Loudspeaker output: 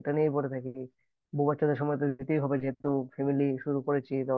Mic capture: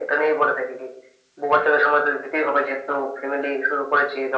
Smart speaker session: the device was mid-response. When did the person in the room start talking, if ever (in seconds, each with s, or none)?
none